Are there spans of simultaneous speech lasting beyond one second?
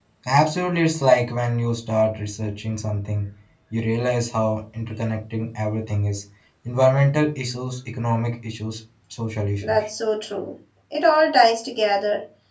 No

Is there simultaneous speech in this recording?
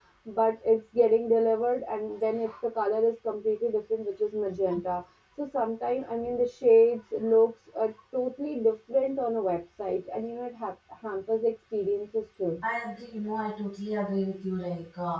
No

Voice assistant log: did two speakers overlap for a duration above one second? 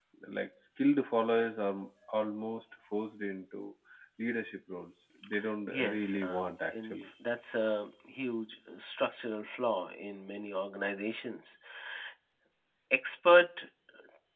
Yes, from 5.7 s

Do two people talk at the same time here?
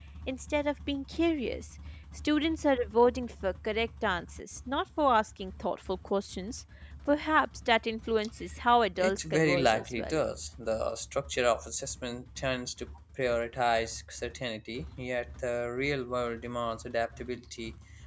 Yes, from 9.0 s

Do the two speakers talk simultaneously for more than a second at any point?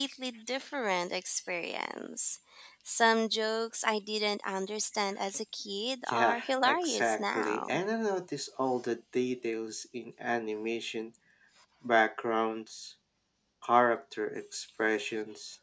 Yes, from 6.1 s

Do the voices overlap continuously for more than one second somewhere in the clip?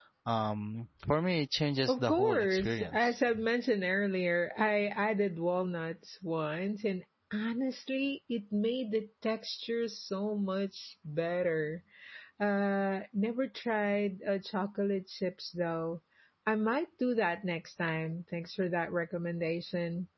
Yes, from 1.9 s

